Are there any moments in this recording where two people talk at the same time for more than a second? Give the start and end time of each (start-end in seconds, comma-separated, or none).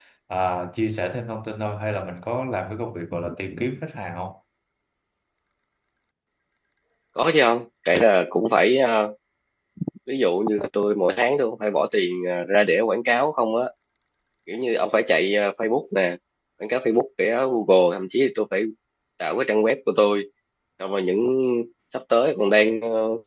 none